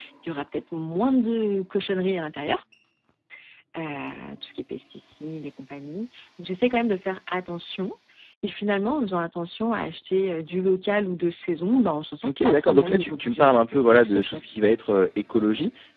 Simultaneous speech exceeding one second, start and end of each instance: 12.2-14.4

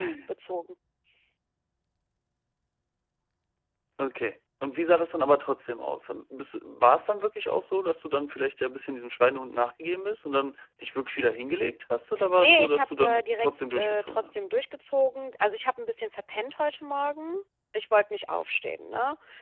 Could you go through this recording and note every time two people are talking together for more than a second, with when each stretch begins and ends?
12.4-14.4

